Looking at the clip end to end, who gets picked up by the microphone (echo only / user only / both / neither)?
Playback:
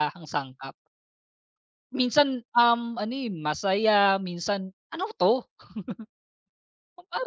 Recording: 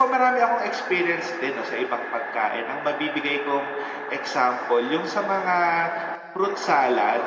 user only